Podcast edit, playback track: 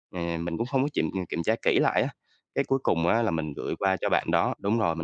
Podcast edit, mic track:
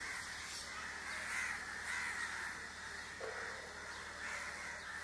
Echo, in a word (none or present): none